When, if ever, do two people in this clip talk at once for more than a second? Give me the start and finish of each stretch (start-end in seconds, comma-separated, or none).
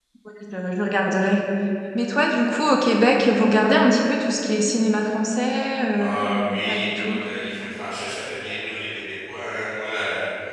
5.9-7.1